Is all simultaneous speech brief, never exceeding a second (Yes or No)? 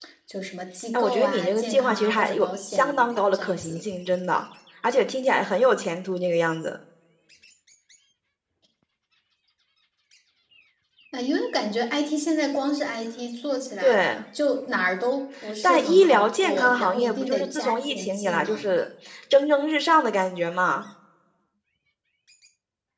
No